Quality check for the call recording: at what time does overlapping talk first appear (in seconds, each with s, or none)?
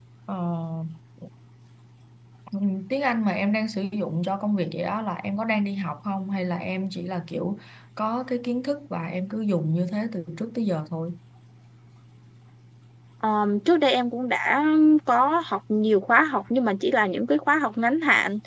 none